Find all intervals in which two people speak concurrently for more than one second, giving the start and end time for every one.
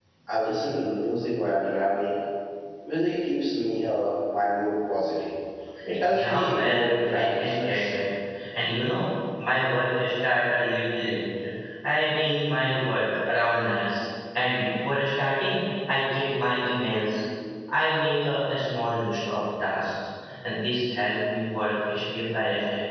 6.1-8.0

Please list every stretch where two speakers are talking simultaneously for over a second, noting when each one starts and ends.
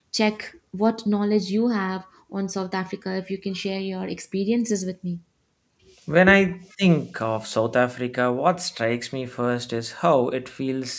none

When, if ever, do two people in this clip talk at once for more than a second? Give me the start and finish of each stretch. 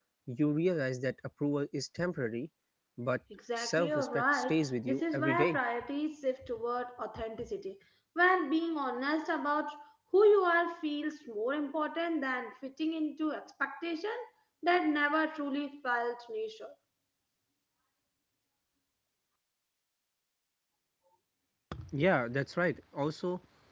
3.6-5.6

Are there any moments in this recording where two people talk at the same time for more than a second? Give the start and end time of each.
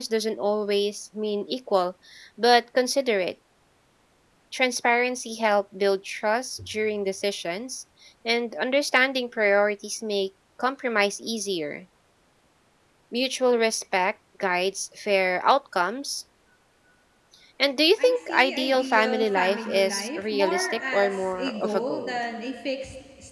18.0-22.2

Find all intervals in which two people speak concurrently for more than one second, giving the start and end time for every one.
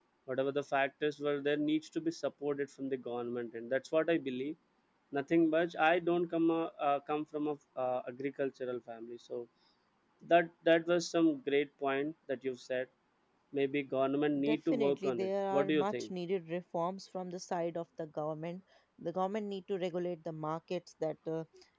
14.4-16.1

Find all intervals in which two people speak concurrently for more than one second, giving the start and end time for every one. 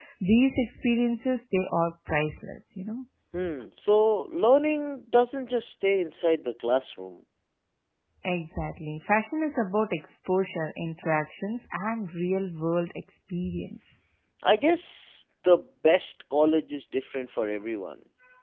none

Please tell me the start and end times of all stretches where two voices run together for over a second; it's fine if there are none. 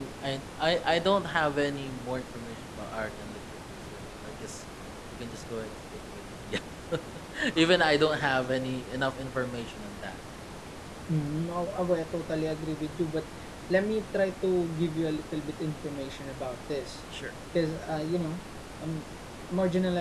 none

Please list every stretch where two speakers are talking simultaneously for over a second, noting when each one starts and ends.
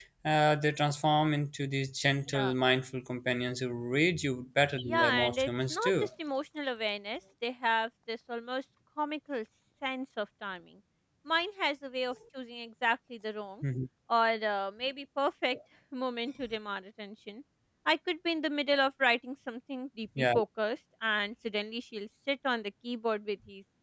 4.8-6.1

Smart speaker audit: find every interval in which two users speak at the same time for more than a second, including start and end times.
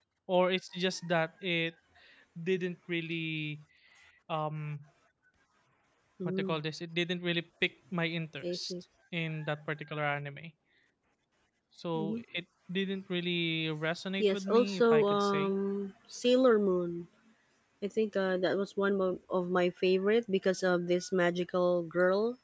14.2-15.5

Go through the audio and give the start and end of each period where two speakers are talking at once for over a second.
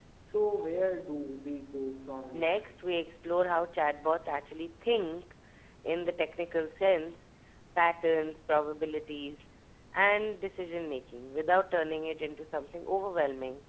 none

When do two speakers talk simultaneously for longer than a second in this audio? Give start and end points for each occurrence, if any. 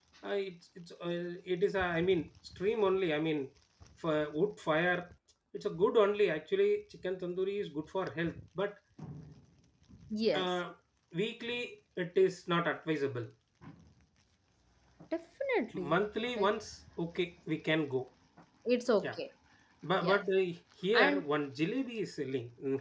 none

